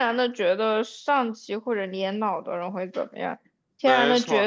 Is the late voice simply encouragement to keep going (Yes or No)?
Yes